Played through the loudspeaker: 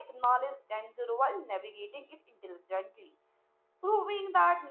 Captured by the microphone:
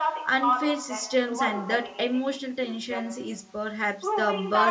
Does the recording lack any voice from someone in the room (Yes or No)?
No